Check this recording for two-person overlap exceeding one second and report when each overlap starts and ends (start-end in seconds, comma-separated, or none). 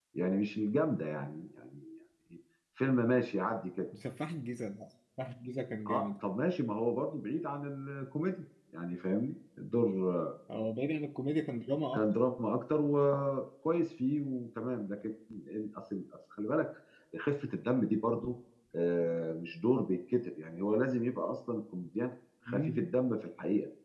none